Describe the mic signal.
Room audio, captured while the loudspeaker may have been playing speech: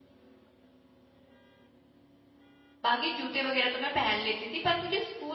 user only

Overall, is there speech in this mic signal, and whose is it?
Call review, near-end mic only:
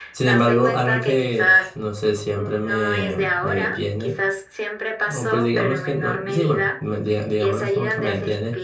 both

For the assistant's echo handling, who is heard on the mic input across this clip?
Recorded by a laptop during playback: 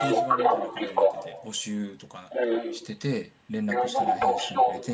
both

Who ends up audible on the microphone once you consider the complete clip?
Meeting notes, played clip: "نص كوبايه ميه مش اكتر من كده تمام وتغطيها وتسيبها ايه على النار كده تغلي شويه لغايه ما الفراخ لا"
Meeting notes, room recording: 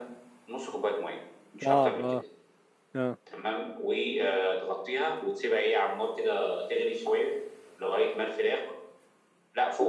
both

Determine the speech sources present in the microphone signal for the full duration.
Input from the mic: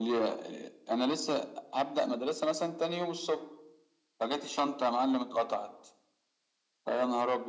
echo only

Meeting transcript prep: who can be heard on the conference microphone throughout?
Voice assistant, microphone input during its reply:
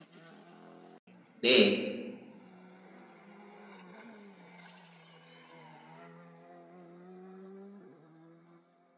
user only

